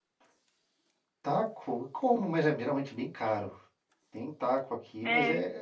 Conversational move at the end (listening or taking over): listening